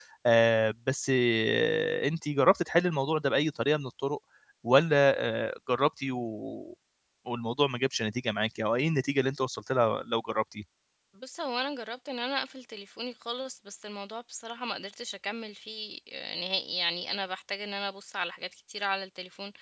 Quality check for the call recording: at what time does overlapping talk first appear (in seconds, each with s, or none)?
none